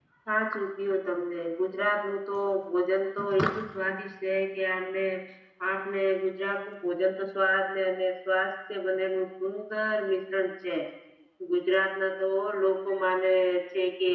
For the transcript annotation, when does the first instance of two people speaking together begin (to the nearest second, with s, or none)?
none